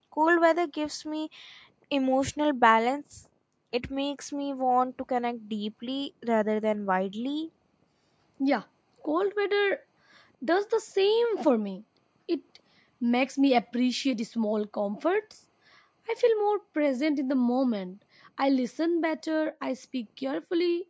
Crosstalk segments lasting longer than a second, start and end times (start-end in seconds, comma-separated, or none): none